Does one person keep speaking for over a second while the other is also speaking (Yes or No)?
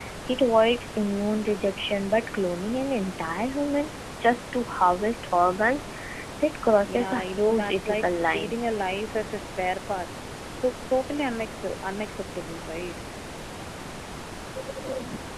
Yes